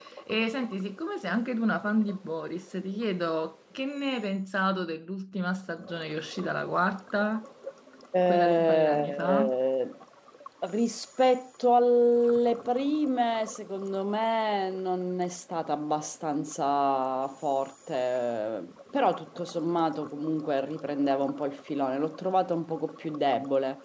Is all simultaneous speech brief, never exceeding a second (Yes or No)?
No